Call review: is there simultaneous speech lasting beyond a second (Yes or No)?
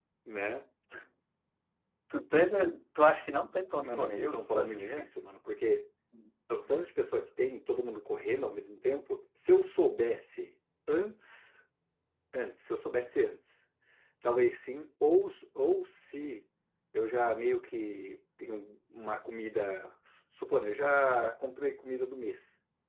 Yes